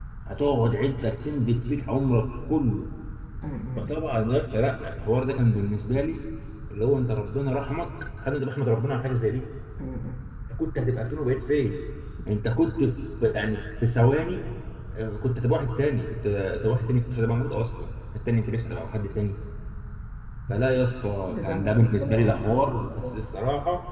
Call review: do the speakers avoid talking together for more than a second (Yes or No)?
No